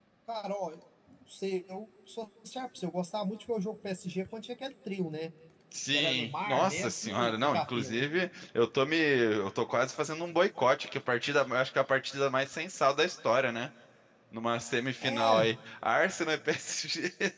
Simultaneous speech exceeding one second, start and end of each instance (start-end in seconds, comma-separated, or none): 5.9-8.1